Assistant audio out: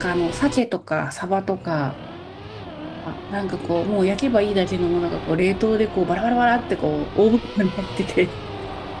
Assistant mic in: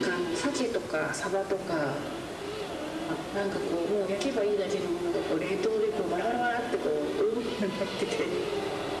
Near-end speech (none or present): none